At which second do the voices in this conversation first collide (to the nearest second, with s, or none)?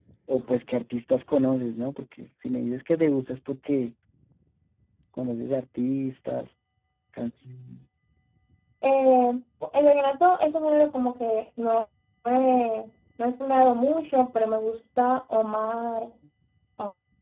none